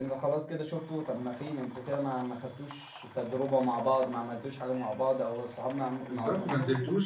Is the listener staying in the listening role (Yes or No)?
No